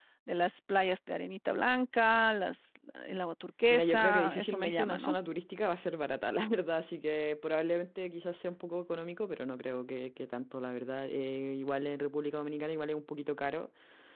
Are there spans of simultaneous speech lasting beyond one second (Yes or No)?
Yes